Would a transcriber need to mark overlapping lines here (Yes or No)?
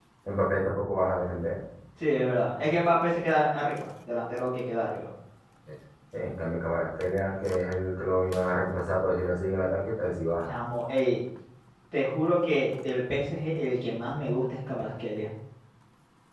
No